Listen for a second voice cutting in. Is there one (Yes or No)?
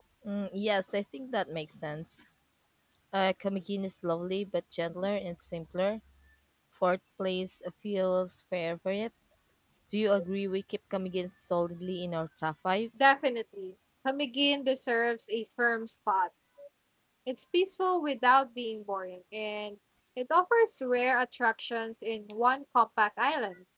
No